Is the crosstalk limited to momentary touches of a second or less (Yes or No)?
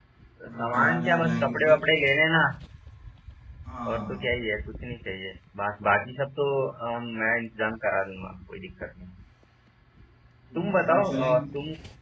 No